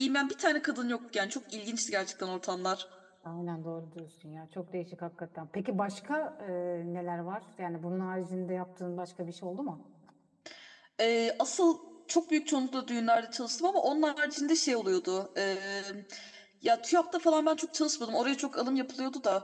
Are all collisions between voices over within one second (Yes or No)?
Yes